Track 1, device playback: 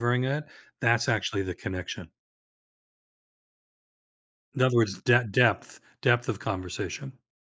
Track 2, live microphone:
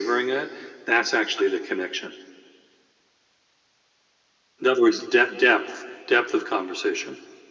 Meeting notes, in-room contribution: none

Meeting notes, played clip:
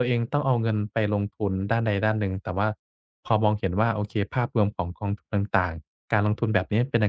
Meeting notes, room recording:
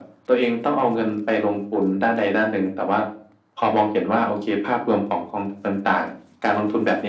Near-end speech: none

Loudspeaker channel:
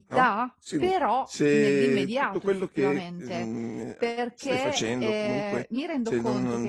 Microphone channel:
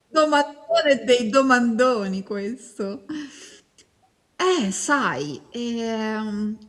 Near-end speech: present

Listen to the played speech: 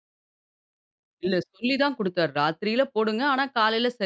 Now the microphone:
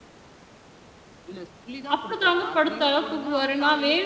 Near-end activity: present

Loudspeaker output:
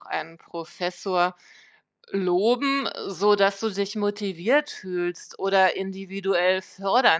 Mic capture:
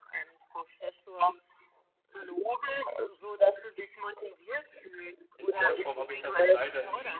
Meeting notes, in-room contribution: present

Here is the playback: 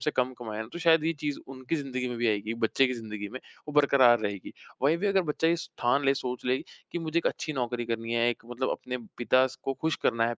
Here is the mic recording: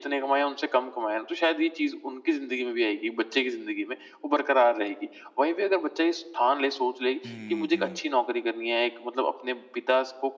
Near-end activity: present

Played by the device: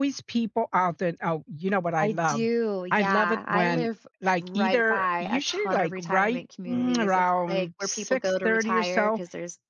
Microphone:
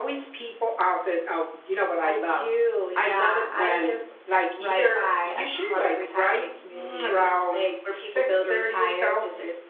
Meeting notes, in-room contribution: none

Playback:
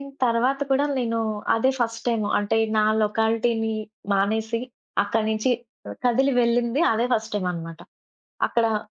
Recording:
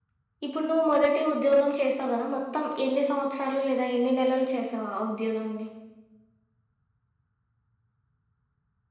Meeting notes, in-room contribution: present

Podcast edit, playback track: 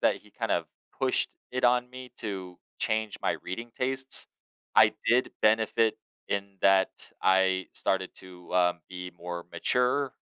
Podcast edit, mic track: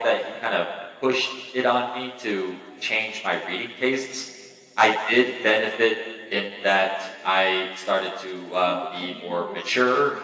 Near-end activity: present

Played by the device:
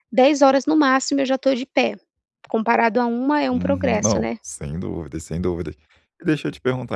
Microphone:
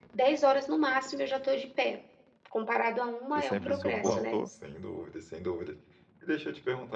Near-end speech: present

